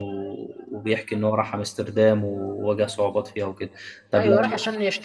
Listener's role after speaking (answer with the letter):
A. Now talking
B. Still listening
A